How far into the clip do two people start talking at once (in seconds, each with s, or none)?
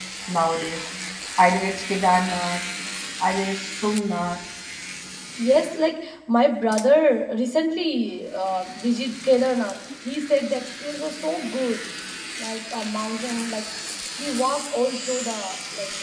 none